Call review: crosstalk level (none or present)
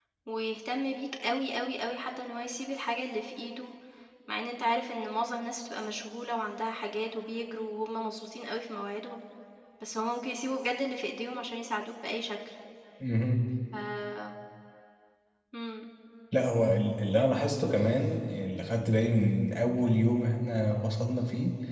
none